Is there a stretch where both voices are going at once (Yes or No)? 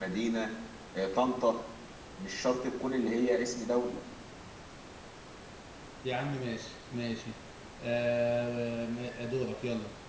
No